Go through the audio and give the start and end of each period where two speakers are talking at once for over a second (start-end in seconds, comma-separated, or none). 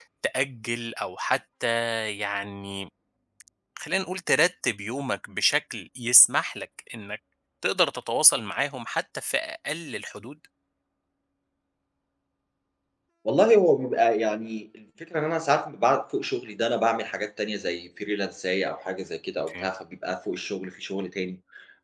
none